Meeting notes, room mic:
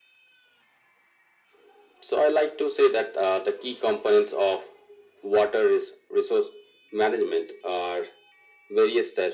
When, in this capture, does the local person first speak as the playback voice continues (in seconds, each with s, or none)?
none